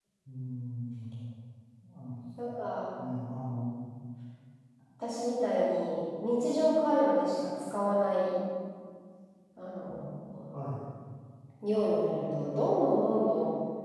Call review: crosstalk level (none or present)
none